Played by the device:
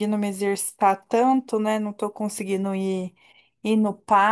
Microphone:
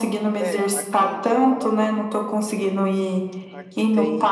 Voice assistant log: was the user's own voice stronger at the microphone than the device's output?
No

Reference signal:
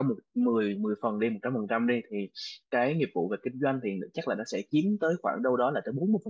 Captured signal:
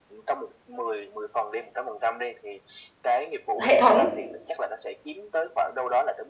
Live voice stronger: Yes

